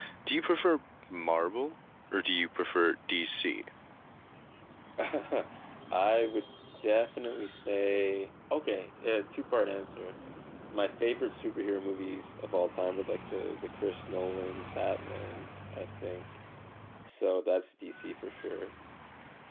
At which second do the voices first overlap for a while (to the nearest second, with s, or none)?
none